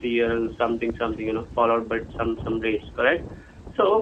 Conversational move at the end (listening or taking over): listening